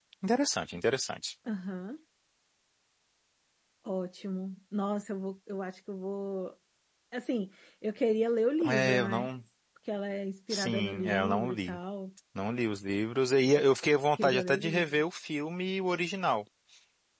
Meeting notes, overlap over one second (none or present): present